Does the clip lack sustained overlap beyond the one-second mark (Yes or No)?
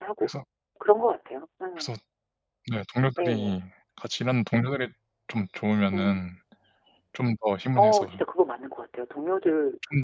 Yes